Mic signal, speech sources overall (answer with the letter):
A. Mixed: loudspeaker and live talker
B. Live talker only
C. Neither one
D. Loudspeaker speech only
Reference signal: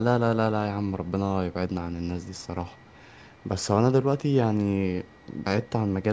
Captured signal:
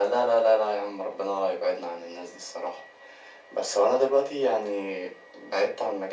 D